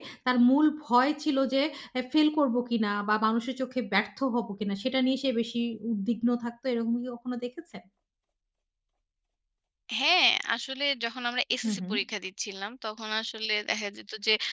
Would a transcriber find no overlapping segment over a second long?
Yes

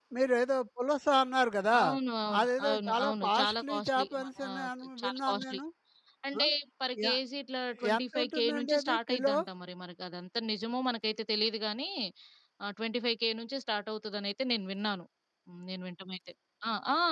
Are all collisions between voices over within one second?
No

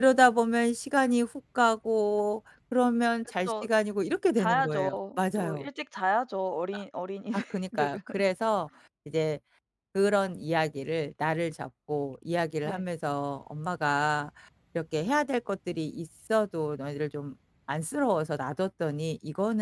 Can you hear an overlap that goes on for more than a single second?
Yes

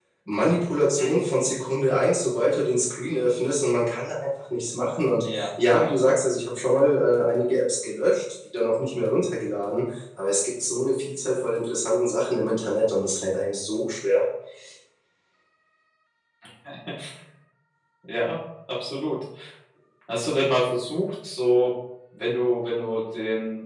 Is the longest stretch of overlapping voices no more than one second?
Yes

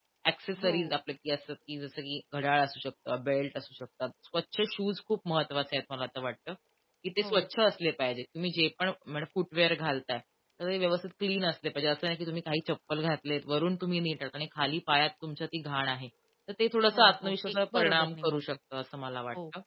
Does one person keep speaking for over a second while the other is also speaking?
Yes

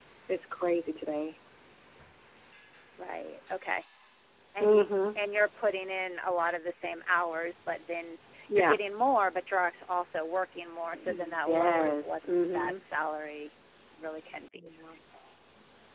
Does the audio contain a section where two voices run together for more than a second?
Yes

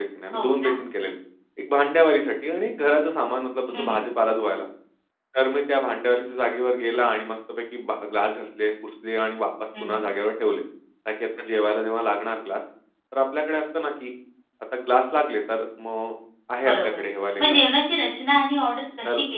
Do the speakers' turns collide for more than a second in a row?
No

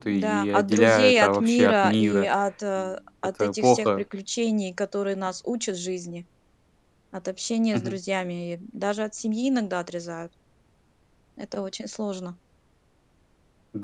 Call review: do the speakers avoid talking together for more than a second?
No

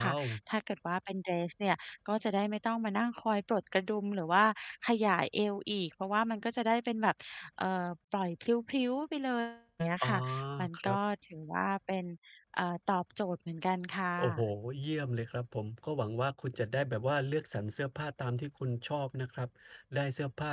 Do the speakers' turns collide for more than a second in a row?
No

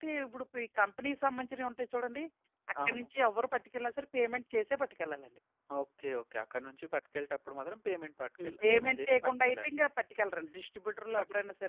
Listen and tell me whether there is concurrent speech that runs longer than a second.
Yes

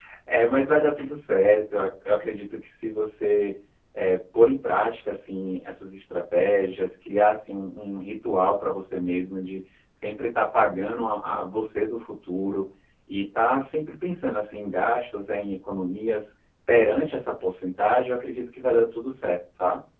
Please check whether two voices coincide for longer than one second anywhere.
No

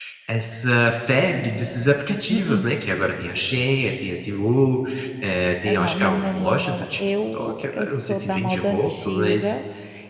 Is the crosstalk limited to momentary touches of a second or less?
No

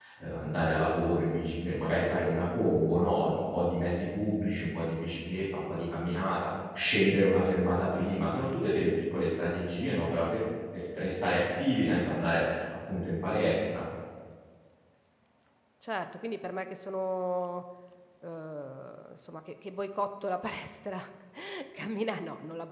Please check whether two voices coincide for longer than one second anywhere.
No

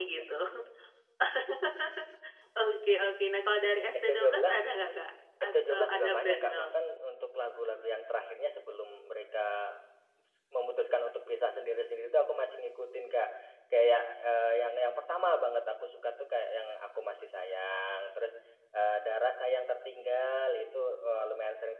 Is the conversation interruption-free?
No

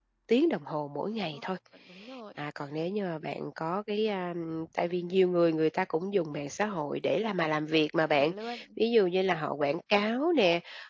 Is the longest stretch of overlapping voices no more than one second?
Yes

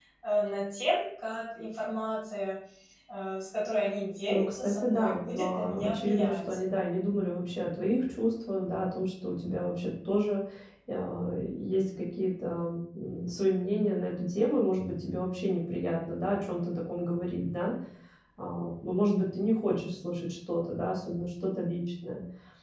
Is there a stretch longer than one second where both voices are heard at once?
Yes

